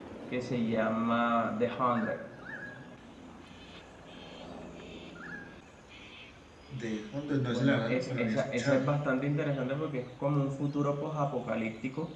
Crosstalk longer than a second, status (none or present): present